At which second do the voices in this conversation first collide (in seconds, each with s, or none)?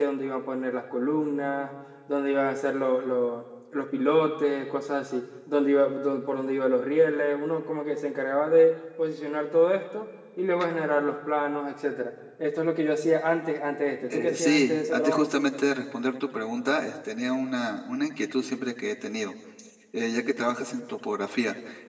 14.1 s